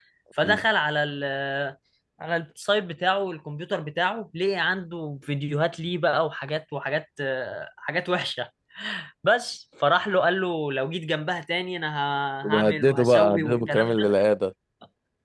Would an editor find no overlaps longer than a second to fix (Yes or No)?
No